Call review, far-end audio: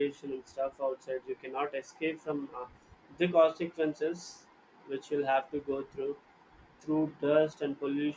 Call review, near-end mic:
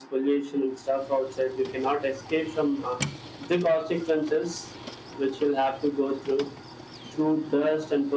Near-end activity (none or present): none